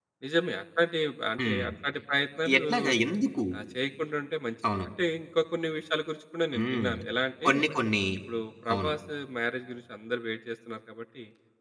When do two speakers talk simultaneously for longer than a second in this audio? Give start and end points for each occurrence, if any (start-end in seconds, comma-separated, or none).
none